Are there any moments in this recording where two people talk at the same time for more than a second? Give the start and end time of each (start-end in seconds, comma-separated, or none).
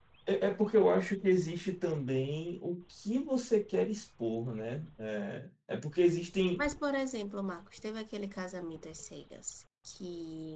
none